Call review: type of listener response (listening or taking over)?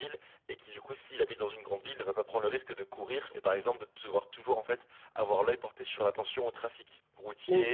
listening